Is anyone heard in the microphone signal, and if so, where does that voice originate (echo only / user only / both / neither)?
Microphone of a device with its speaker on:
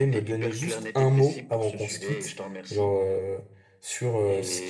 both